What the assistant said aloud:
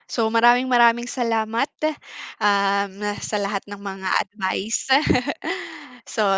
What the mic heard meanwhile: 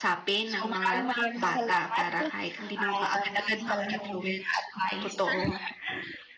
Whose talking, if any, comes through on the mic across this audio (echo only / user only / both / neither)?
both